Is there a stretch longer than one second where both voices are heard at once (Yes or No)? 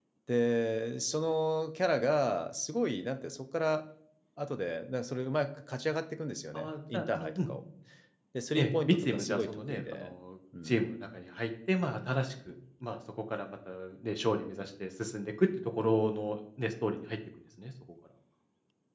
Yes